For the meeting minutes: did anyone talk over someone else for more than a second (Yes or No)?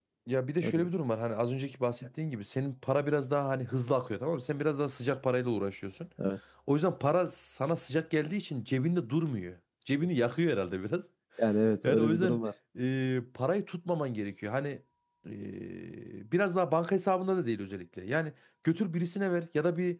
No